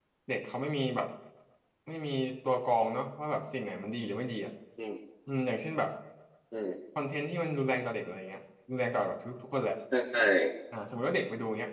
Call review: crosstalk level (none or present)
none